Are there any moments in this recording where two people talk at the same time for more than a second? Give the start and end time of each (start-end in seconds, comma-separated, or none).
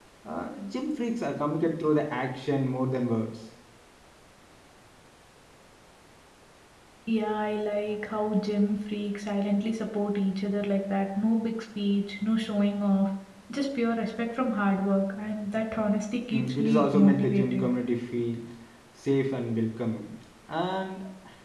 16.3-17.7